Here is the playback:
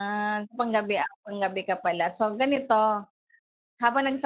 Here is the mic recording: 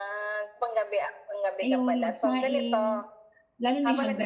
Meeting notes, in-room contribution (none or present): present